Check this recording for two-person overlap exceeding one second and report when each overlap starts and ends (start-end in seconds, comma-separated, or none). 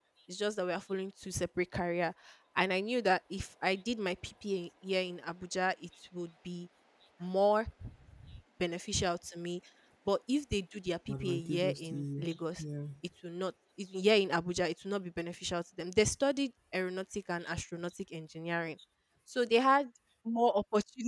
11.1-12.6